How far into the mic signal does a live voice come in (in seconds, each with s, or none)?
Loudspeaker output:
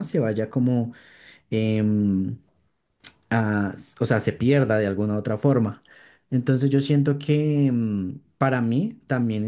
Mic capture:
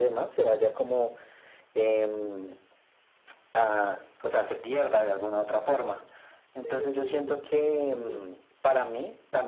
6.6 s